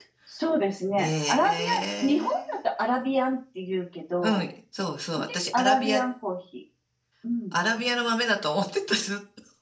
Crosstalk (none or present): present